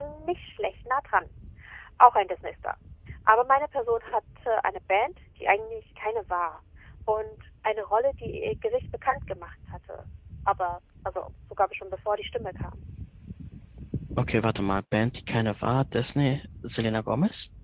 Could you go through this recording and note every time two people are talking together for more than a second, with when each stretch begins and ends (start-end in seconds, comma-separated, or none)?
none